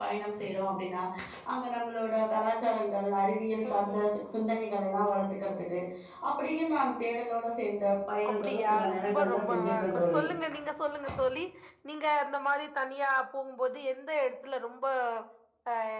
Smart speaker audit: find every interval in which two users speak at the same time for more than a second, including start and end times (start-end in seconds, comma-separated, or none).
8.3-10.2